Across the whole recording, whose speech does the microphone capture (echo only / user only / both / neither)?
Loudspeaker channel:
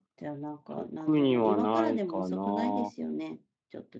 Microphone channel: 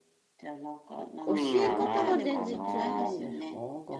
both